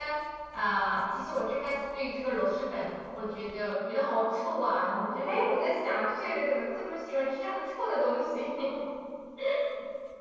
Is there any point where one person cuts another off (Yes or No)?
No